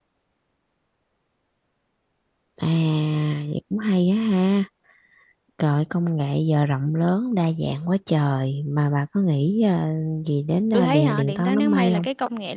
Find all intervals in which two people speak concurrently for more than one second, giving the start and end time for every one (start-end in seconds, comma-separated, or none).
10.7-12.1